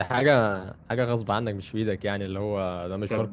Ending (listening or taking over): taking over